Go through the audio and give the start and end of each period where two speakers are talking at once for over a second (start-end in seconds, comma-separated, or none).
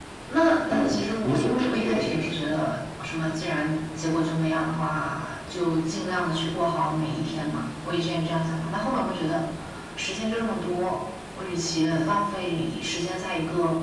0.7-2.3